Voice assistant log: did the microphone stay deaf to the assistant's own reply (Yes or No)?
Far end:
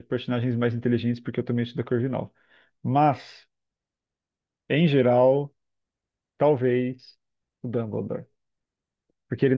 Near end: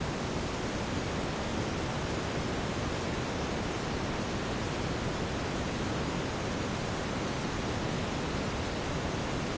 Yes